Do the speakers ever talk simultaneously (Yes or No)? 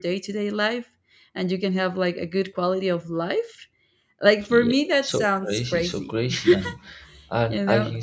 Yes